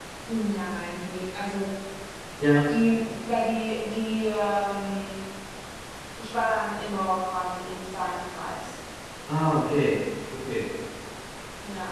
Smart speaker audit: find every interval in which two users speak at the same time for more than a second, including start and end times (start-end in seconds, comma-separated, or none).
none